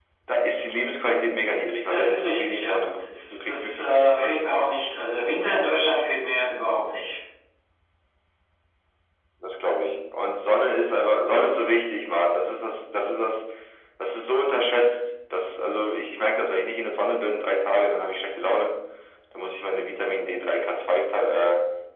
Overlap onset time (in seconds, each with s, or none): 1.8 s